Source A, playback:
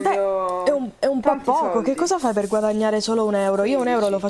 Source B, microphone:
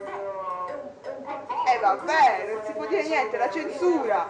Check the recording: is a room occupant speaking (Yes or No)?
Yes